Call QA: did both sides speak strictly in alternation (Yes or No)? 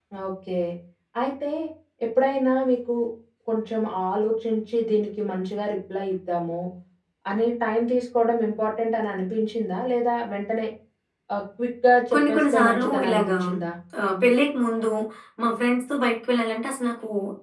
No